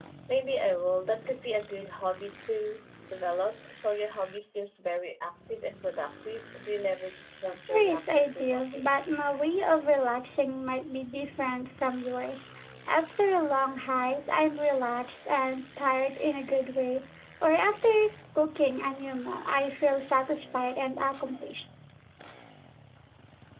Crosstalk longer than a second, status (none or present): present